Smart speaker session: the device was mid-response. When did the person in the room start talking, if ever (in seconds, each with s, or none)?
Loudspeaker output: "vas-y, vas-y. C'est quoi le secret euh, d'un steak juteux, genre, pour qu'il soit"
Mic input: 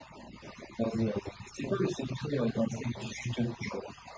none